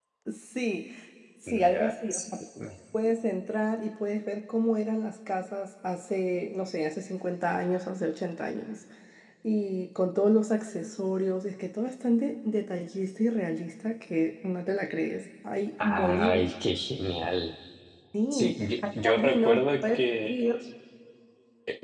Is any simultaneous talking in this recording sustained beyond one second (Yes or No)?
Yes